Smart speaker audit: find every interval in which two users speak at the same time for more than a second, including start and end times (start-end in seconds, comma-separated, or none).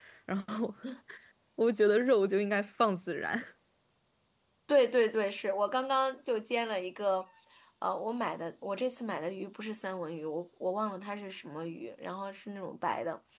none